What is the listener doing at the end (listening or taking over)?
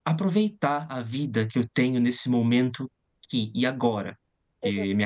listening